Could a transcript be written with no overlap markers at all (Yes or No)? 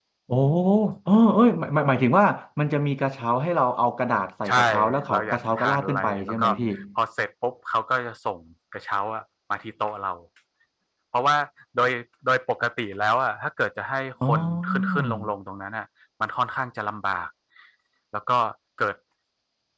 No